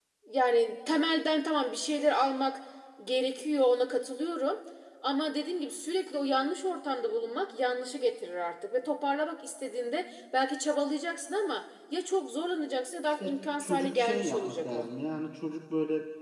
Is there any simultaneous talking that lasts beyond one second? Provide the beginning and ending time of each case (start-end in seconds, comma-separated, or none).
13.0-14.8